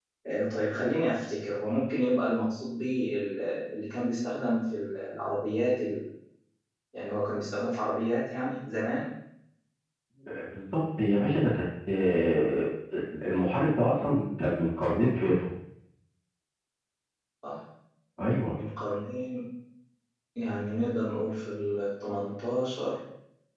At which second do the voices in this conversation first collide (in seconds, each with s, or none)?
none